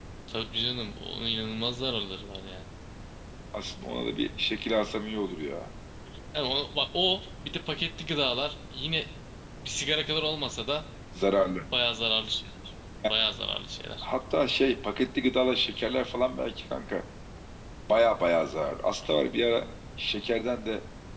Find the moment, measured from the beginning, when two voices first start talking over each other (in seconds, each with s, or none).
none